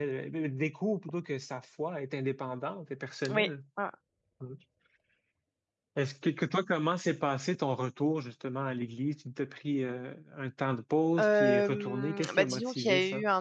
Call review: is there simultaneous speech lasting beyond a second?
Yes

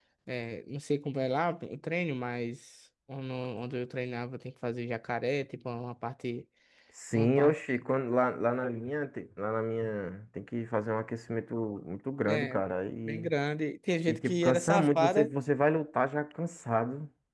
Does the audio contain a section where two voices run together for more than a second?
Yes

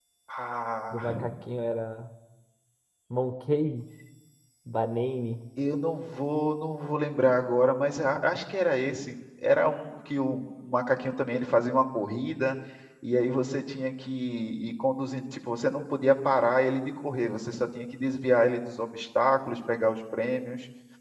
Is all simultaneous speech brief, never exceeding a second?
Yes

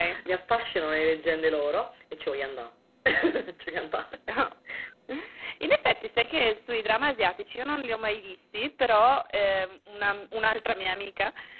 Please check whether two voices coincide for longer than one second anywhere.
No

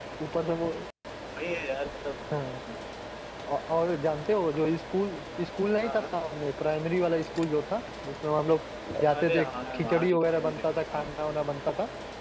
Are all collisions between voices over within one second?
No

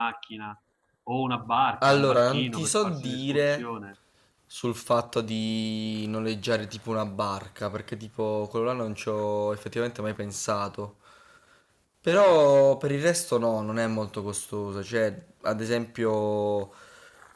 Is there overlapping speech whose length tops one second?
Yes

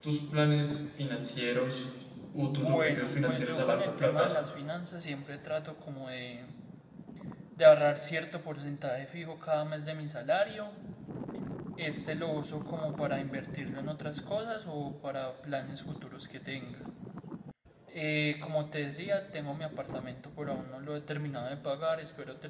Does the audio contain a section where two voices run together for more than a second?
Yes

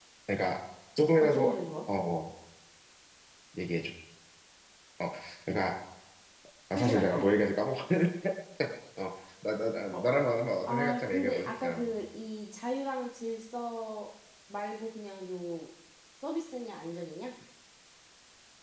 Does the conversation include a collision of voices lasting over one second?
Yes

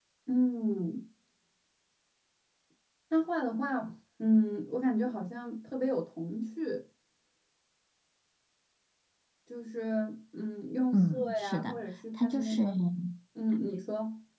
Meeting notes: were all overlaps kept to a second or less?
No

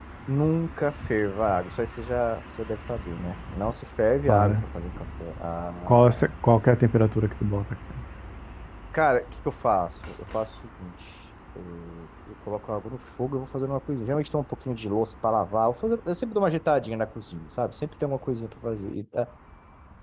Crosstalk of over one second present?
No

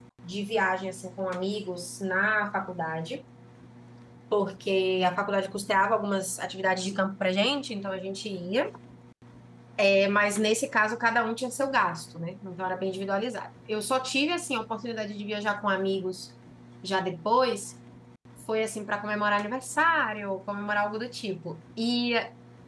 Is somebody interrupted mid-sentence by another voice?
No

